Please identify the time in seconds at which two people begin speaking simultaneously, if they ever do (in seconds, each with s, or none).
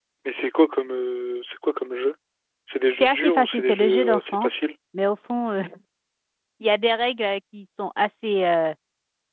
3.0 s